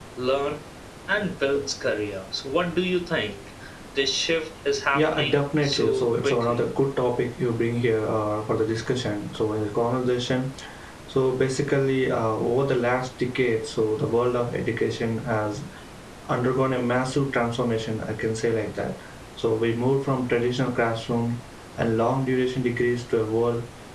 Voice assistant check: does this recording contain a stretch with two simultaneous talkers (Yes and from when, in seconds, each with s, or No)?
Yes, from 4.9 s